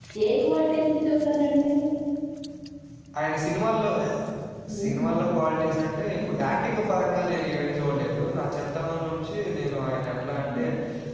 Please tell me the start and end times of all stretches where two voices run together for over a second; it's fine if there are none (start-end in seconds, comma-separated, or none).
none